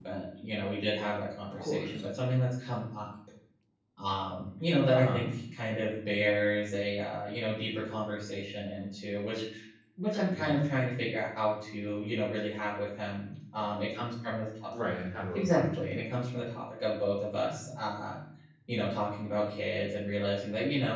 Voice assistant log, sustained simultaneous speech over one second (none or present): none